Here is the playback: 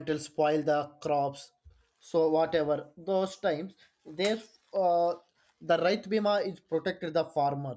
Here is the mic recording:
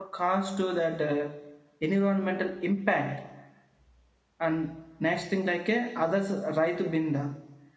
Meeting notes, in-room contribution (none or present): present